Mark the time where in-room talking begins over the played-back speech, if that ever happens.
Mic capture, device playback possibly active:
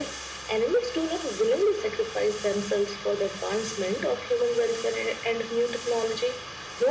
none

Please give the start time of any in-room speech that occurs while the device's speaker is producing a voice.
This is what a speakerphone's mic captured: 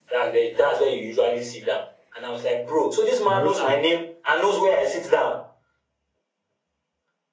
3.2 s

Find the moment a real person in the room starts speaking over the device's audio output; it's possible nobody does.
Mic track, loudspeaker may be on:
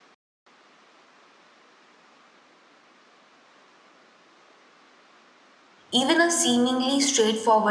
5.9 s

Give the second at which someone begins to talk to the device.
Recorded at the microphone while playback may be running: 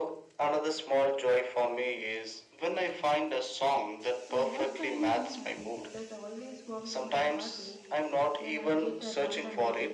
4.2 s

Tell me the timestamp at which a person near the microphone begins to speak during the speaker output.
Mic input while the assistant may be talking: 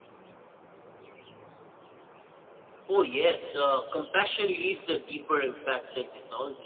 none

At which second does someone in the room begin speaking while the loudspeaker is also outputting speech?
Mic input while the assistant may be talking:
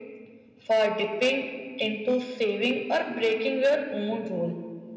none

